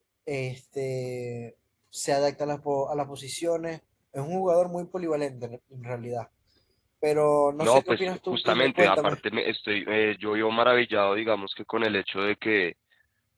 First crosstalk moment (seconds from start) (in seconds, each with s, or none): 7.6 s